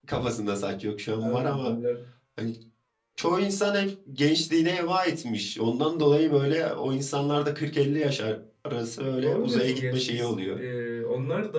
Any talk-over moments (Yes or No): Yes